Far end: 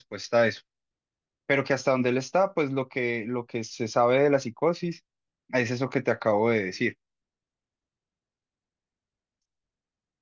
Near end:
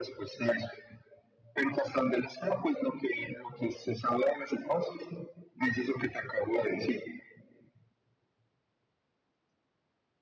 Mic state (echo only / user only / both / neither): echo only